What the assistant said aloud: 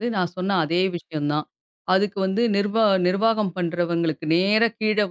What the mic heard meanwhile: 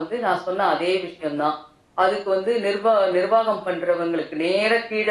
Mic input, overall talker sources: echo only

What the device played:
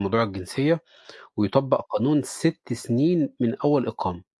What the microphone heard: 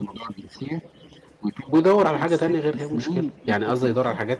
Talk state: both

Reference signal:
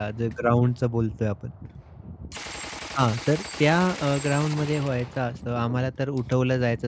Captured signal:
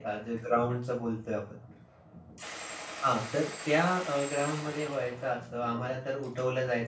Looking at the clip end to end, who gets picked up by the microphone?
echo only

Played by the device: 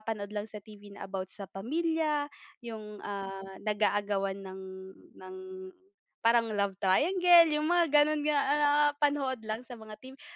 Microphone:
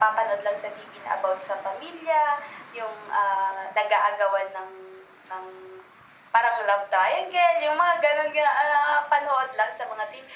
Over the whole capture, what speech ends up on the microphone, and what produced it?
echo only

